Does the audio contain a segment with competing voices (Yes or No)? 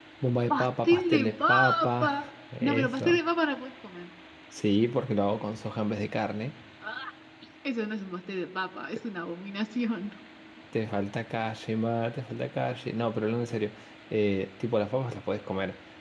Yes